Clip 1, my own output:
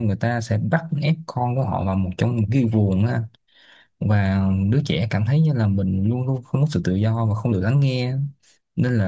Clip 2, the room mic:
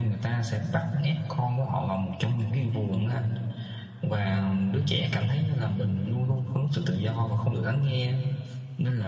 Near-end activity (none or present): none